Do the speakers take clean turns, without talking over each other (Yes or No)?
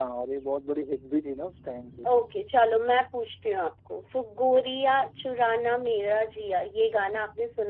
Yes